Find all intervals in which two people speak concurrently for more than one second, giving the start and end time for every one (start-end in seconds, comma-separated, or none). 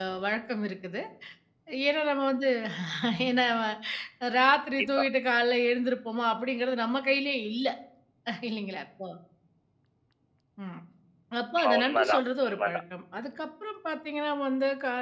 11.6-12.8